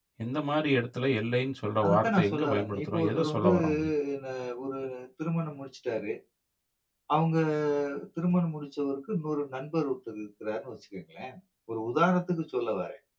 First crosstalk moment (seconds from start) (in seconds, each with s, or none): 1.8 s